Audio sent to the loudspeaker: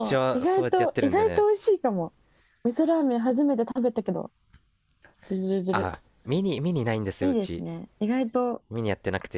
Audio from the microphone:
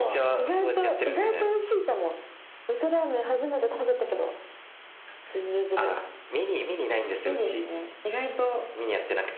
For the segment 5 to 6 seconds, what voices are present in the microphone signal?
echo only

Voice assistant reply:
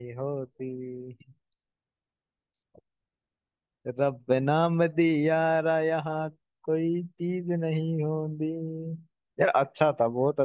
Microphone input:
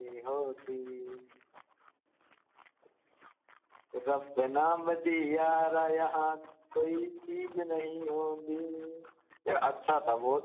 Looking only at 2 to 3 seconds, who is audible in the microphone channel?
neither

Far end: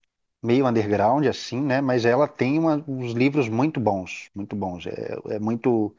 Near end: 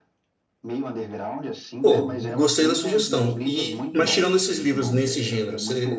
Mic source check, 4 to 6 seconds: both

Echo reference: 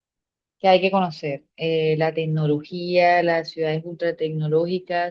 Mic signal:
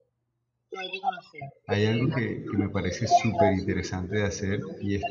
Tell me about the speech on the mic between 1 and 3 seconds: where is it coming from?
both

